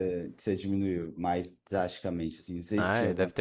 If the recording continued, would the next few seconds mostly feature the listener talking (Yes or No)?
Yes